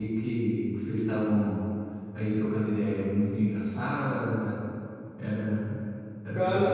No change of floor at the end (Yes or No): No